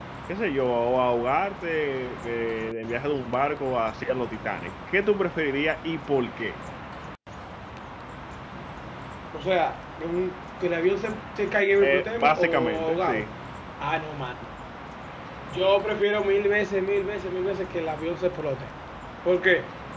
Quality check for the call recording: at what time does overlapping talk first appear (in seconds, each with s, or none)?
11.8 s